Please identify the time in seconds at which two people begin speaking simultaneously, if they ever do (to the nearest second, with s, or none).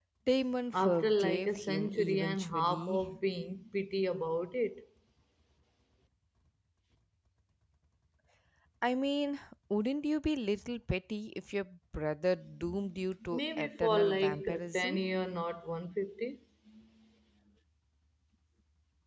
1 s